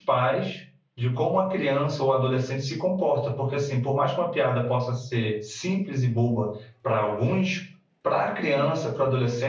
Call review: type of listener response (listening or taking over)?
listening